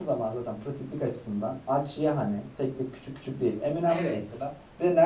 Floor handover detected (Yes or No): No